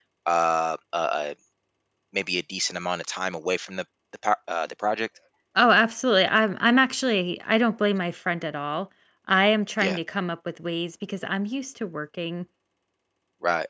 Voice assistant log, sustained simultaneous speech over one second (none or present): none